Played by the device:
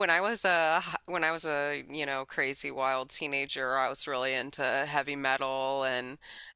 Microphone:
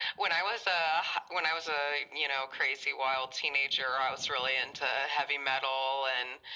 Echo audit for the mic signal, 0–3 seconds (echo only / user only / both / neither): echo only